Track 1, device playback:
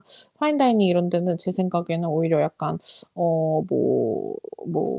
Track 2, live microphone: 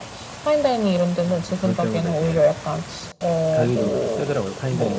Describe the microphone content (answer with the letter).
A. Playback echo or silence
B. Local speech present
B